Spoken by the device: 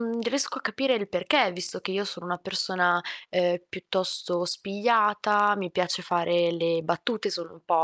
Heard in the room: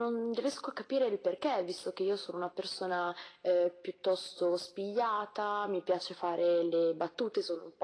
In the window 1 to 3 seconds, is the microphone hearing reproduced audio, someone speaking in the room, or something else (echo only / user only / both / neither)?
echo only